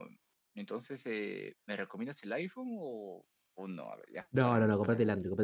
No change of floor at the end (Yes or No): No